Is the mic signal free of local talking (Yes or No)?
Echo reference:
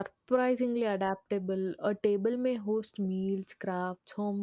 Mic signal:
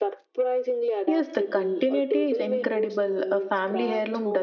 No